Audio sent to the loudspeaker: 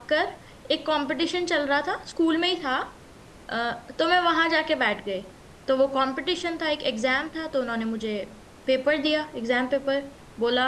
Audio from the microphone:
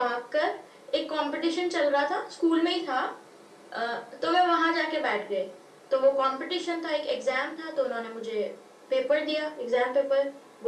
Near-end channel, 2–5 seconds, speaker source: echo only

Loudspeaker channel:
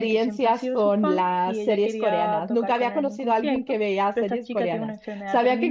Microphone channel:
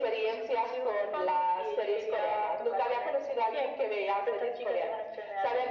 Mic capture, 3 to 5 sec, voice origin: echo only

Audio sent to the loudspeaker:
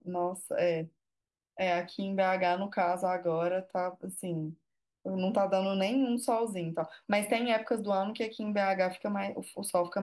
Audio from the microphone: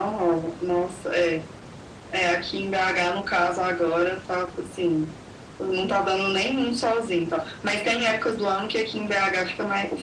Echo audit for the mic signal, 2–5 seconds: echo only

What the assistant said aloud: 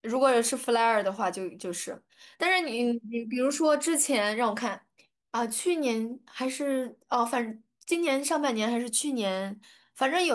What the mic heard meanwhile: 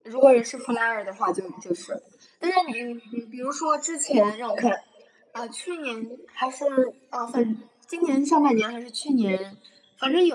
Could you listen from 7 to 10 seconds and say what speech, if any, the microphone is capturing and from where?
echo only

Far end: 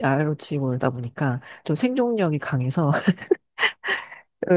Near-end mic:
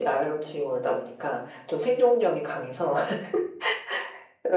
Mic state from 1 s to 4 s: echo only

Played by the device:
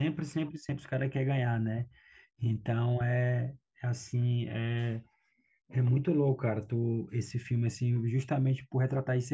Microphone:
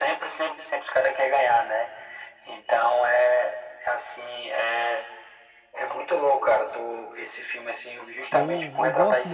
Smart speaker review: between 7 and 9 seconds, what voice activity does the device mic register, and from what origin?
both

